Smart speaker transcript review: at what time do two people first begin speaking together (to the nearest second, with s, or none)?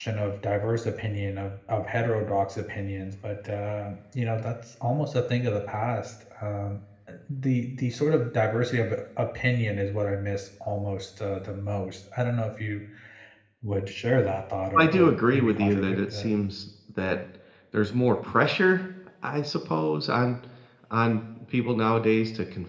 15 s